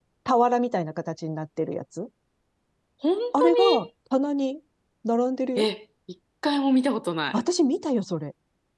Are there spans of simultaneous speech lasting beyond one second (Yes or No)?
No